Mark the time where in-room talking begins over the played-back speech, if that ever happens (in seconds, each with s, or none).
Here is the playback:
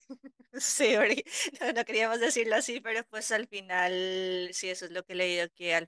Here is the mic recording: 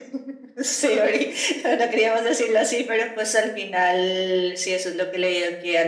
none